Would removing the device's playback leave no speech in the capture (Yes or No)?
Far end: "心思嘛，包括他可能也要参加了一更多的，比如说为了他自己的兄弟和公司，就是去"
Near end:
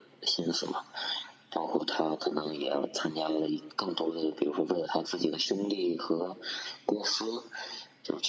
Yes